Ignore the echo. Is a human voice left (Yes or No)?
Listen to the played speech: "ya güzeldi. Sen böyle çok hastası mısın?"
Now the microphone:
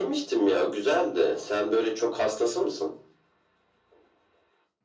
No